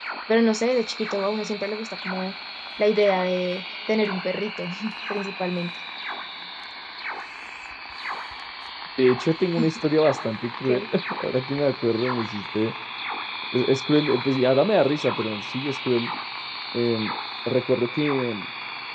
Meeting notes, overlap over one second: none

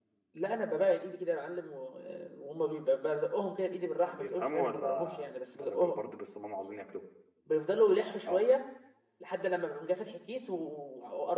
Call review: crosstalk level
present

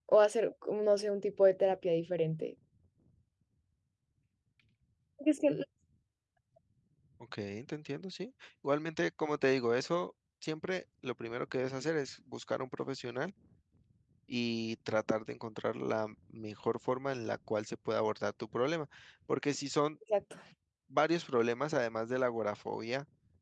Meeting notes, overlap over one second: none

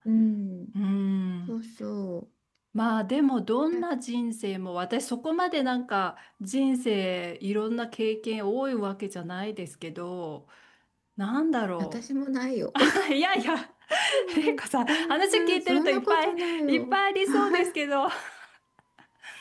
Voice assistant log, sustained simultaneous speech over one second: present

